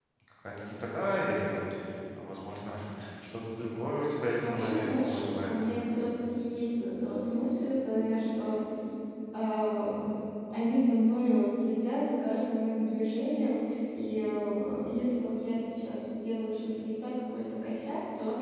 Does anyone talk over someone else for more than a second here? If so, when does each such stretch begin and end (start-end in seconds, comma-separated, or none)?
4.4-5.8